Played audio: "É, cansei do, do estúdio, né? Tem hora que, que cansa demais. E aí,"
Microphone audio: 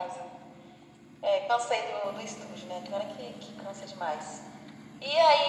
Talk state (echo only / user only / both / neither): echo only